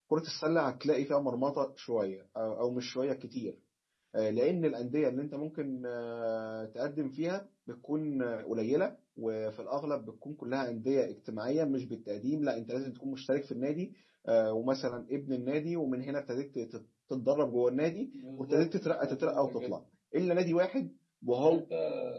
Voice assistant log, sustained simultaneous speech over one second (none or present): present